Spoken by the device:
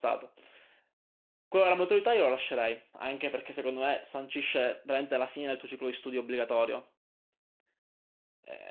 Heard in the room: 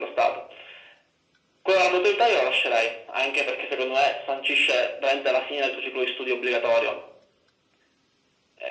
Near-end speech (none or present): none